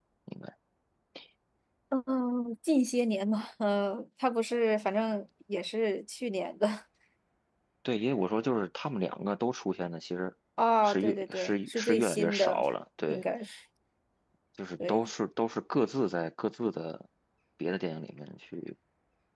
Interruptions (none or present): present